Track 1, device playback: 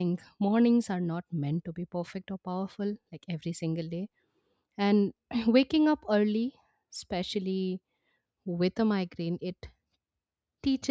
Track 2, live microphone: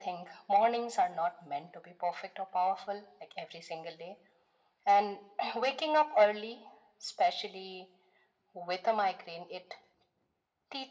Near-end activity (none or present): none